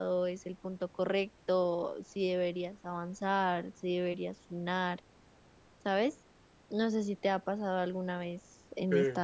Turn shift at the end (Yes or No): No